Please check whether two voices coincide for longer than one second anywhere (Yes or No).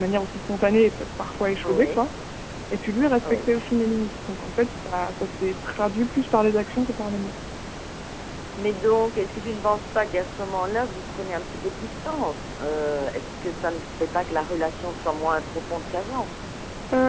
No